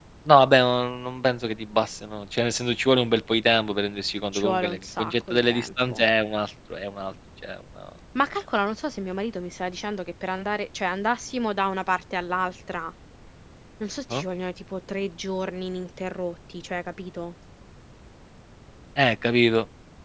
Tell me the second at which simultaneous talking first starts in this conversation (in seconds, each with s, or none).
4.3 s